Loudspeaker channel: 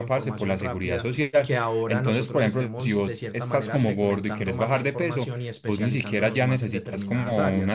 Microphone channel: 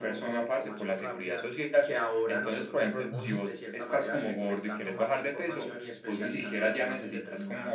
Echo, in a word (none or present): present